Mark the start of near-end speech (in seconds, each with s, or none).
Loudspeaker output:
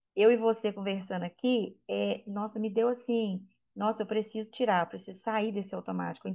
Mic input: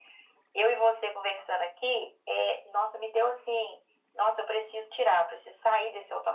none